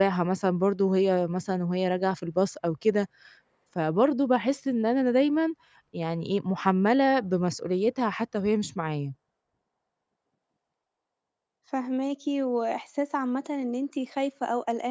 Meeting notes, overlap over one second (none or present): none